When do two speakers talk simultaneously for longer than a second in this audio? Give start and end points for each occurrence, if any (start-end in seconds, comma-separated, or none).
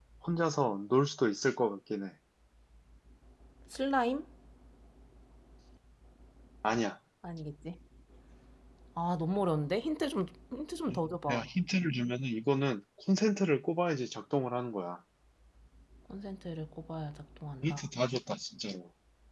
none